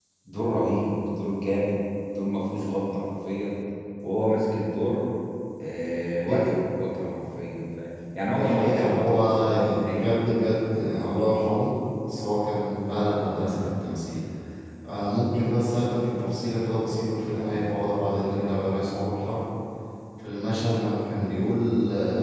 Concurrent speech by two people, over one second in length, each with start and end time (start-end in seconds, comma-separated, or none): 8.3-10.2